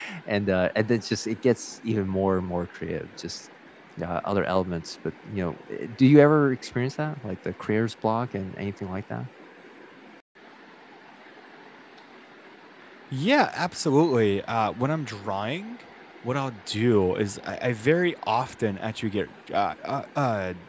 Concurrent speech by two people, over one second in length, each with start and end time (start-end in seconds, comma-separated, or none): none